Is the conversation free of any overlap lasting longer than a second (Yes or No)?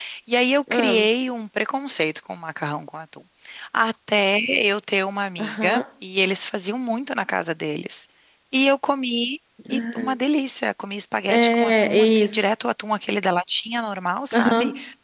No